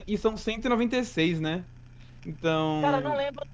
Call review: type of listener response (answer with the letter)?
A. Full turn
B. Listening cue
A